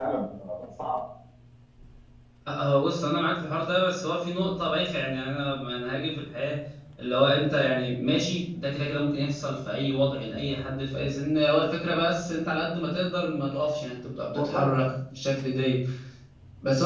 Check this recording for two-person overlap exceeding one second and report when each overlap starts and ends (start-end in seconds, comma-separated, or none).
none